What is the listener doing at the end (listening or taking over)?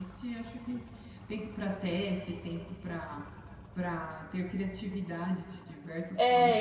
taking over